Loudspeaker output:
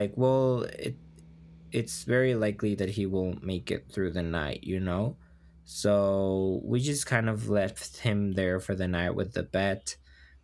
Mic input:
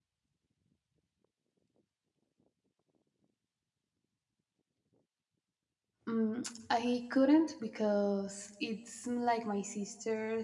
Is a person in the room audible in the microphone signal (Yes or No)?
Yes